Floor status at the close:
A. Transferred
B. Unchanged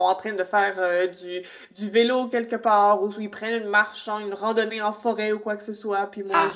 A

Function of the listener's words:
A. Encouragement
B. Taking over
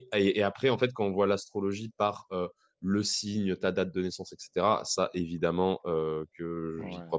A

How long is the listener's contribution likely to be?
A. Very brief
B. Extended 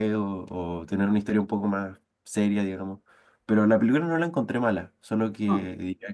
A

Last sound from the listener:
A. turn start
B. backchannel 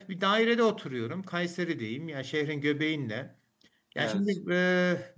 B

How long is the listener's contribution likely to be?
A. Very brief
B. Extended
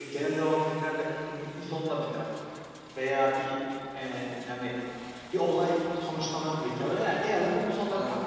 A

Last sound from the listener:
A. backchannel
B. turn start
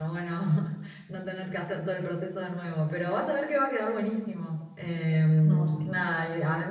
A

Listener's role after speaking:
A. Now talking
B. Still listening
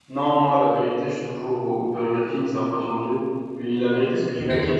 B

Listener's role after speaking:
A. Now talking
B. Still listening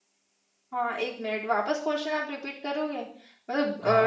A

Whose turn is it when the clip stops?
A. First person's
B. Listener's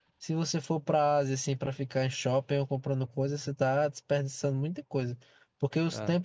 A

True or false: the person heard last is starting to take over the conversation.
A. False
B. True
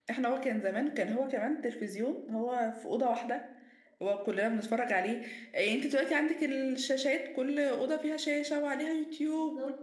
A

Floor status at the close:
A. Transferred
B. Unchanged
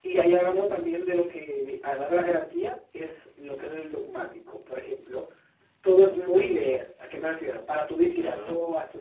B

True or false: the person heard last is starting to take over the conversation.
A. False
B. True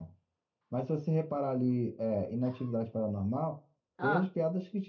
A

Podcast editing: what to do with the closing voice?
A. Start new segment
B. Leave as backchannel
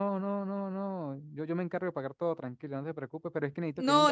A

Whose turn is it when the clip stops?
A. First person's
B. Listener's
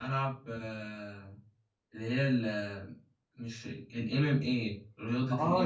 B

